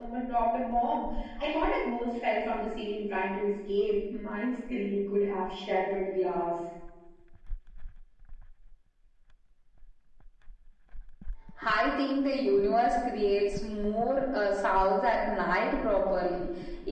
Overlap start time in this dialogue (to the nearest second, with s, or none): none